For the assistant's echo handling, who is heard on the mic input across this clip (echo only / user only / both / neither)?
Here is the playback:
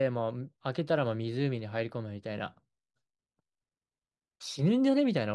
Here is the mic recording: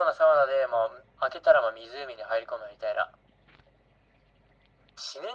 echo only